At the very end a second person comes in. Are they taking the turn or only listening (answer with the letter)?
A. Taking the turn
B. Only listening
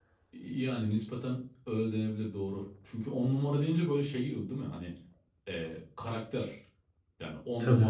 B